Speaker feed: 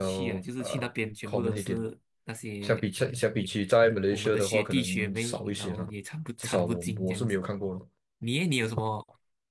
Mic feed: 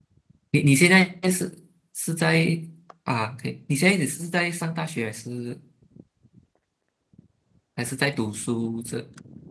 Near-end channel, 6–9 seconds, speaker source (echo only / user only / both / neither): user only